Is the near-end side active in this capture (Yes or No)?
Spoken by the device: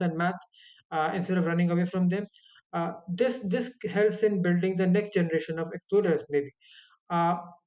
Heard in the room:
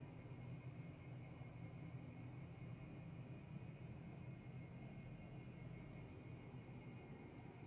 No